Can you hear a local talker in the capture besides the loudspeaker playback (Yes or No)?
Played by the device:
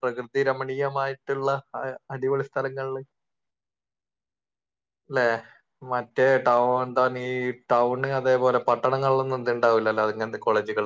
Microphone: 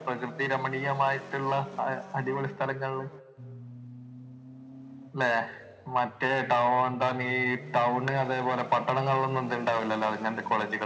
No